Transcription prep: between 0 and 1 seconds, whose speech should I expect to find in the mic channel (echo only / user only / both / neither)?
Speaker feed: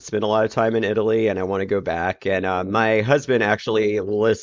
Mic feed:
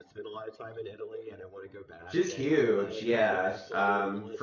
echo only